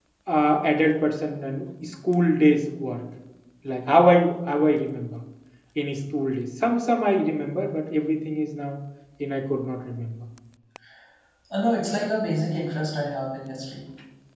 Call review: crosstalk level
none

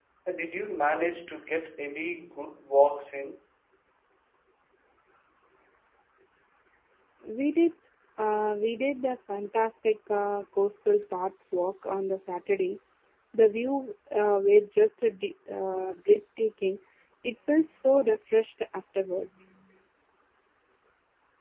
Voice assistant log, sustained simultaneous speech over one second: none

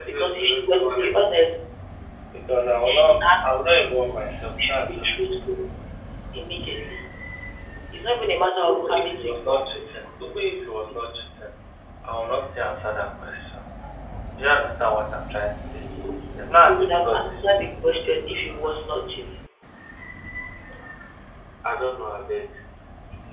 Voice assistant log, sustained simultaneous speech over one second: present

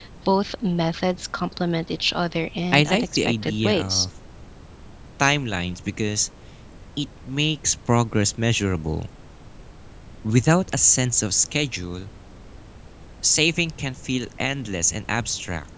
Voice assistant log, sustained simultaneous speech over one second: present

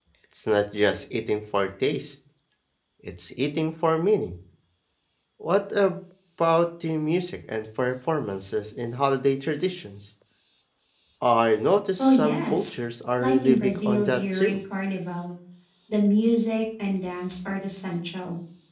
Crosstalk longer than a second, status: present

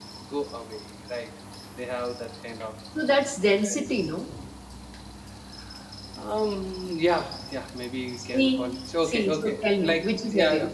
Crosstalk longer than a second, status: present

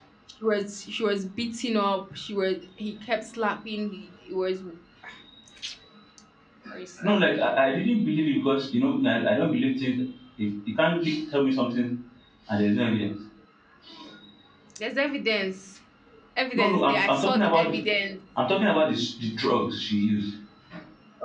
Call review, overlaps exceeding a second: present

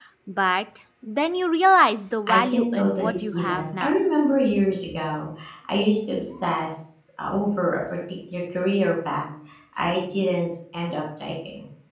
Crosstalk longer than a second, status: present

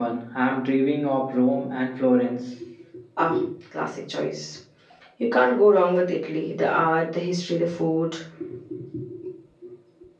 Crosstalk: none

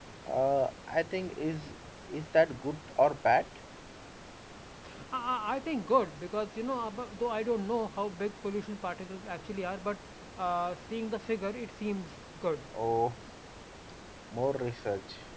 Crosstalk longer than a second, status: none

